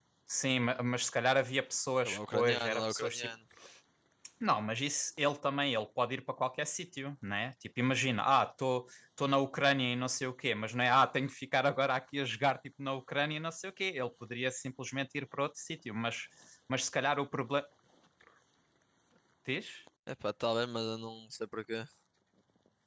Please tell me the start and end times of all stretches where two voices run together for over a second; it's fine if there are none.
2.0-3.3

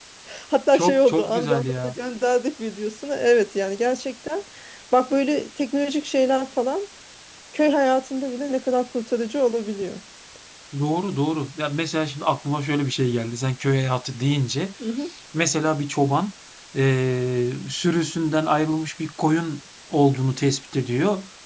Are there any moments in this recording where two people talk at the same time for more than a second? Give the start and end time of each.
0.7-1.9

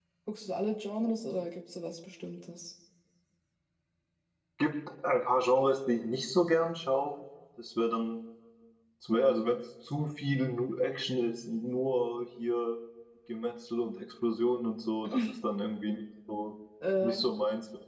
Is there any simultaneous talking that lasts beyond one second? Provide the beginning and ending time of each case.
none

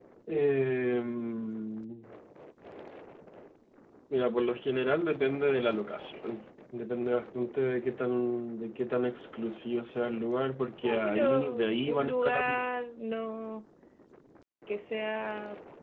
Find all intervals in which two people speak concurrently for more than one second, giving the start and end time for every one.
10.8-12.7

